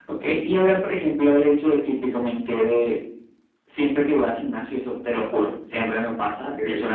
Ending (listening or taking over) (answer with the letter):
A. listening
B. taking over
A